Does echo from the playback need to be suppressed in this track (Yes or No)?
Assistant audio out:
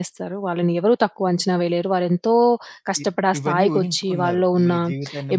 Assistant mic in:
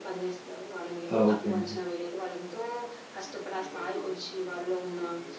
Yes